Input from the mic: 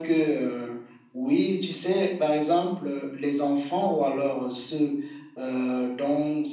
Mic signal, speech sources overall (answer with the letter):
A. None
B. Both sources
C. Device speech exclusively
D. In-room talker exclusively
C